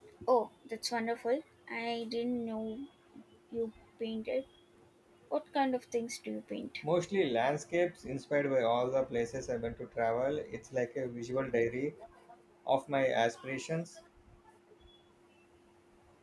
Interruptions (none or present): none